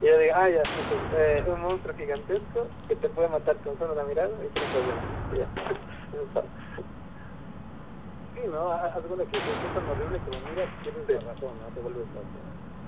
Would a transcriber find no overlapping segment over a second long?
Yes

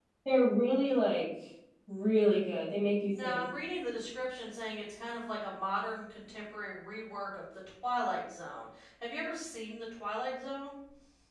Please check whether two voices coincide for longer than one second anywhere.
No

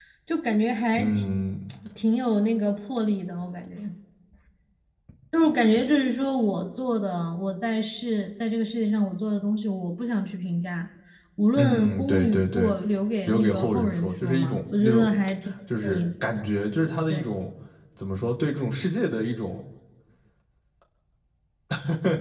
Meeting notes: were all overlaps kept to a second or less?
No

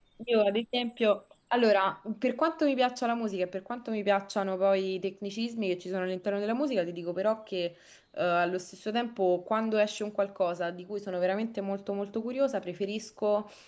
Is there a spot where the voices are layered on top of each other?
No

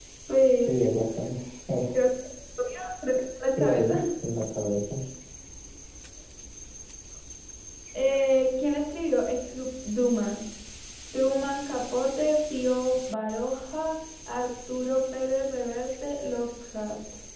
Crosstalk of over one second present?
No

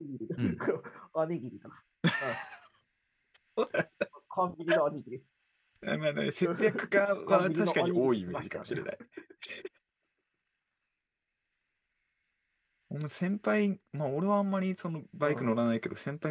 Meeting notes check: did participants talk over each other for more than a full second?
Yes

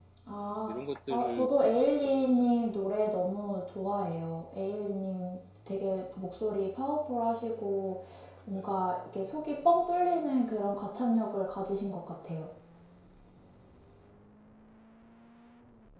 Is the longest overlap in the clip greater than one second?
Yes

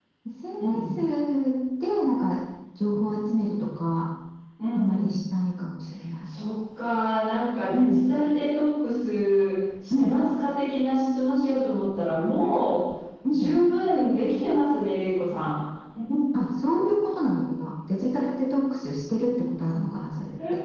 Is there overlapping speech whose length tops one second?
No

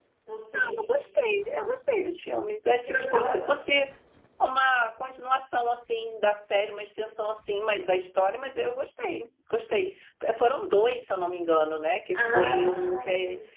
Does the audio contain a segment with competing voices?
Yes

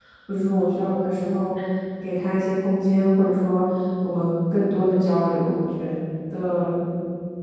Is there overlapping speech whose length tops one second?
No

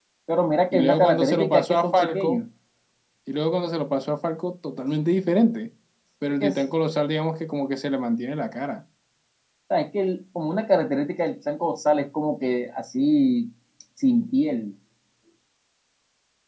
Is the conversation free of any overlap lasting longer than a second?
No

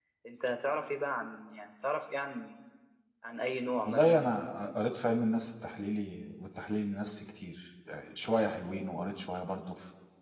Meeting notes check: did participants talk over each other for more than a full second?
No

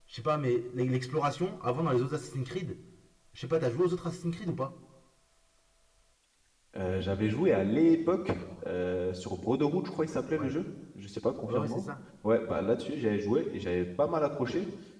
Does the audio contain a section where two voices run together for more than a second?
No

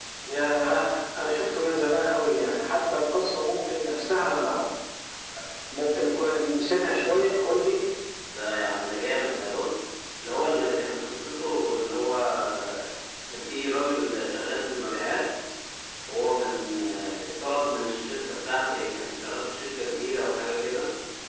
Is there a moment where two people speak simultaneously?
No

